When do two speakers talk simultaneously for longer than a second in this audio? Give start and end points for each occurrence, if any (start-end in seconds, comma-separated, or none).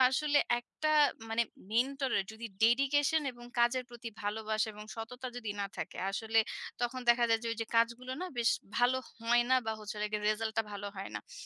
none